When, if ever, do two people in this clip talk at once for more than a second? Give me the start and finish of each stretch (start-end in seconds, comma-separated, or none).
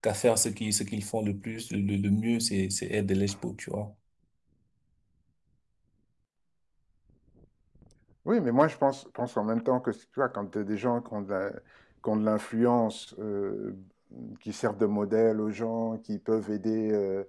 none